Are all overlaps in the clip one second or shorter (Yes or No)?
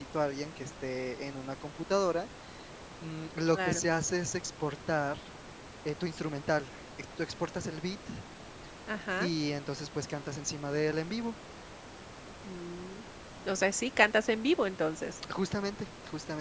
Yes